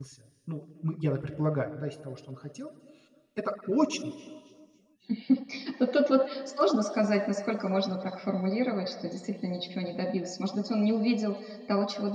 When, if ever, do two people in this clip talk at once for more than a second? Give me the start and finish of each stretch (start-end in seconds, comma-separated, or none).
none